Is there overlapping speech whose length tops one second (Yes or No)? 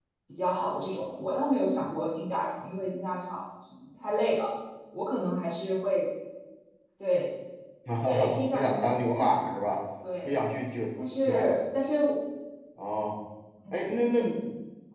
Yes